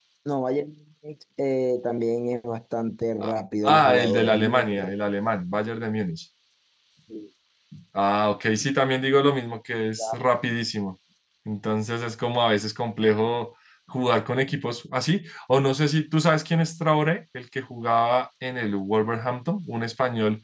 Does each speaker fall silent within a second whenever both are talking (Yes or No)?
No